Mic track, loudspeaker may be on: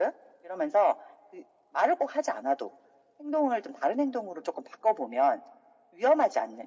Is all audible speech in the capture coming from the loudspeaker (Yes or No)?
Yes